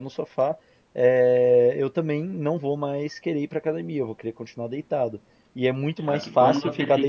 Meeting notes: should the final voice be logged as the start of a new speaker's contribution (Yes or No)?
Yes